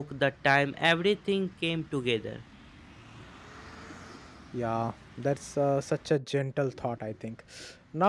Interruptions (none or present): none